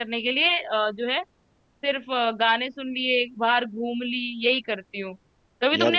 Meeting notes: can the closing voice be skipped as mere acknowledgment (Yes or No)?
Yes